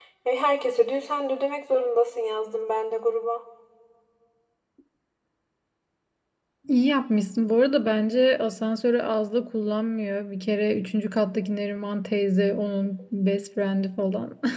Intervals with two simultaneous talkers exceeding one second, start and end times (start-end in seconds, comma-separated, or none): none